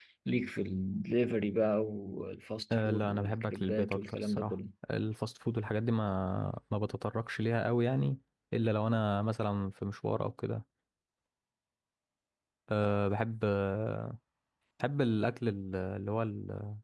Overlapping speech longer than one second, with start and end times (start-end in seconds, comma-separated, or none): 2.7-4.6